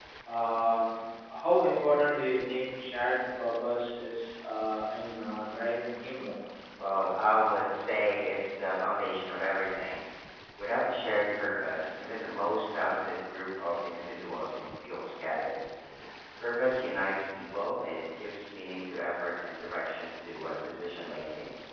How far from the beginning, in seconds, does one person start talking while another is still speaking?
none

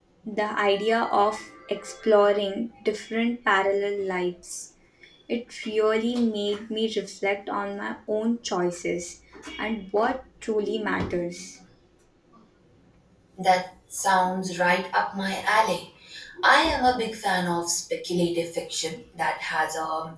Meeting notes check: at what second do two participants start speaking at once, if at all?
none

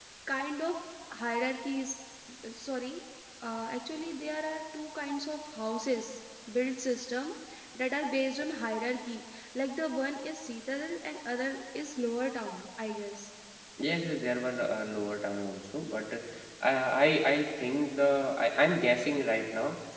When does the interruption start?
none

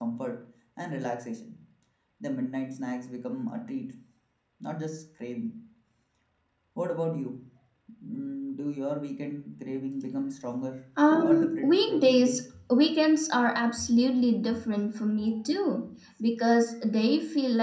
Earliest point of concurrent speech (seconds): 11.2 s

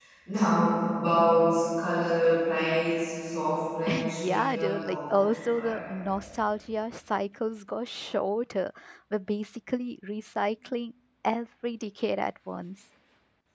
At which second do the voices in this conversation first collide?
4.0 s

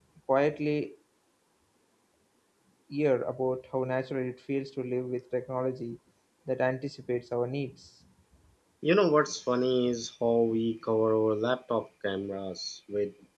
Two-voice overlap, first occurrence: none

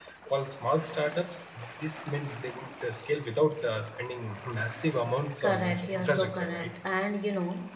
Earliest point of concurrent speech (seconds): 5.4 s

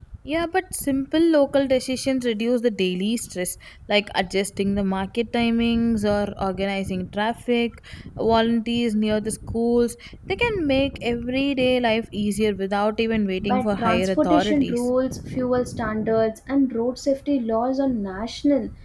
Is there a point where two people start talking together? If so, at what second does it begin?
13.4 s

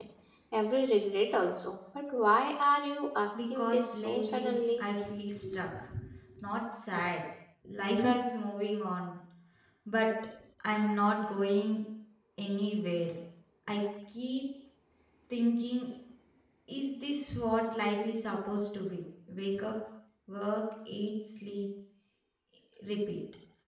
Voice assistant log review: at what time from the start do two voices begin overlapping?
3.3 s

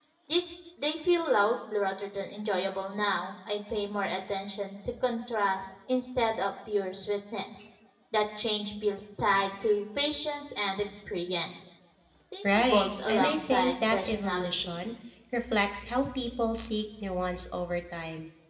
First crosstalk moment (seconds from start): 12.4 s

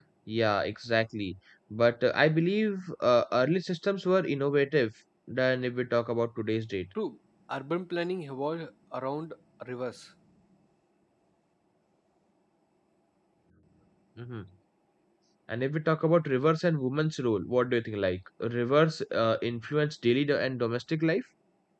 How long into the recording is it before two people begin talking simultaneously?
none

